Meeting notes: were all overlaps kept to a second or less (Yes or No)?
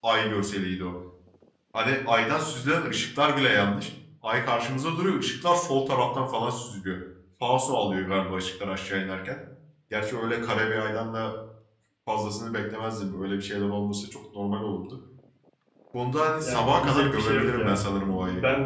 No